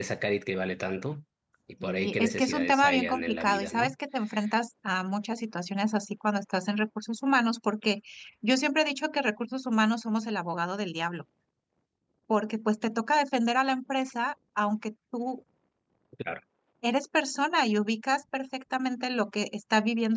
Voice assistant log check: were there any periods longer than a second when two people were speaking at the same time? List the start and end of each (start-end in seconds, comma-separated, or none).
1.8-3.9